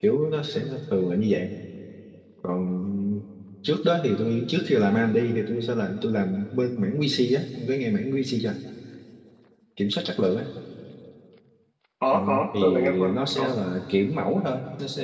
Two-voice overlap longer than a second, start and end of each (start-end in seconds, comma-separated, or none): 12.1-13.6